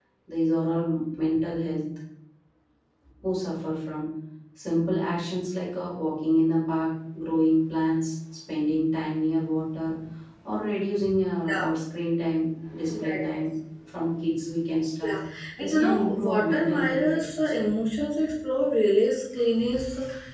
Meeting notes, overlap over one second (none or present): present